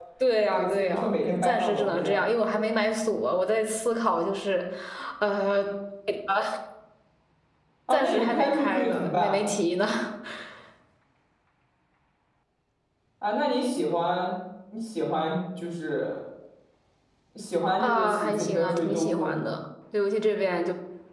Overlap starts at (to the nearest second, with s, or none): 1 s